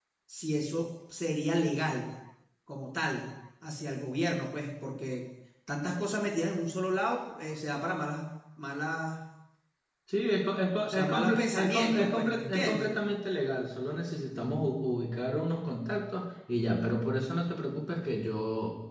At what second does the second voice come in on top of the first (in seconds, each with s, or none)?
10.8 s